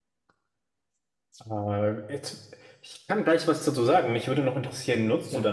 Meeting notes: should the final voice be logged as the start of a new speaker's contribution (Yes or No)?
No